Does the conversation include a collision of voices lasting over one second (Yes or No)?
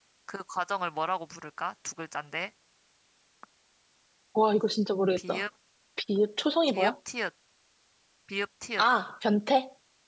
No